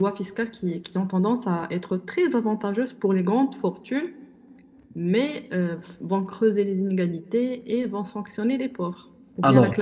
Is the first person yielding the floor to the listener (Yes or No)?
Yes